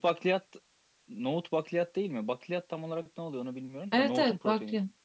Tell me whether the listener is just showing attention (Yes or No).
No